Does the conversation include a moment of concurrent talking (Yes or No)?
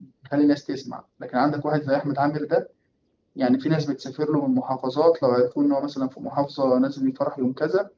No